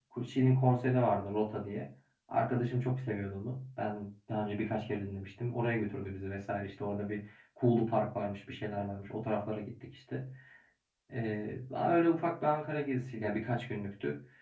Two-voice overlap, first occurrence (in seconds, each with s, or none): none